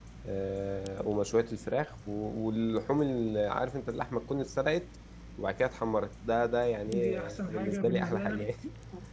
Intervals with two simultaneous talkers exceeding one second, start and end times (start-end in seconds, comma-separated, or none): 6.9-8.5